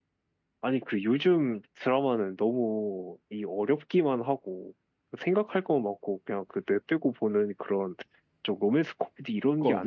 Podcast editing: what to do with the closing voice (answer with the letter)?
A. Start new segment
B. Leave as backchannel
A